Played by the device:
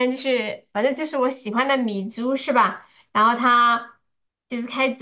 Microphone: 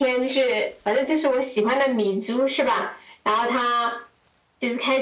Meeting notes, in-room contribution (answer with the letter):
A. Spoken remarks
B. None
B